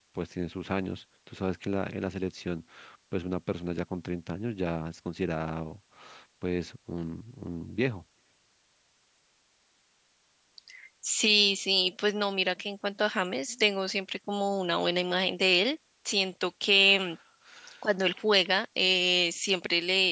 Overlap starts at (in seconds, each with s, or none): none